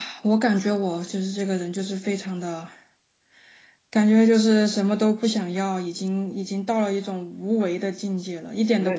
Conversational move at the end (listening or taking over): taking over